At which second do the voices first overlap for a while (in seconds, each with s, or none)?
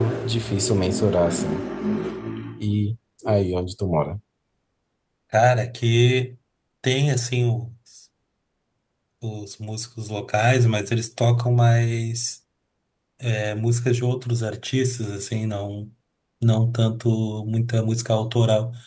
none